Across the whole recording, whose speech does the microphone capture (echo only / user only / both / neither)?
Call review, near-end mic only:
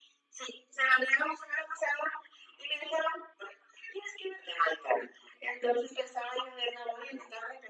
echo only